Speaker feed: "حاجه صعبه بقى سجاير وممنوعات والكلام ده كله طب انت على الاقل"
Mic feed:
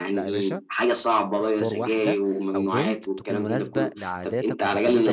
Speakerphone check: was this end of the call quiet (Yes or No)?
No